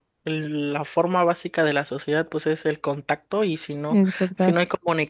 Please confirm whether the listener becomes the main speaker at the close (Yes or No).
No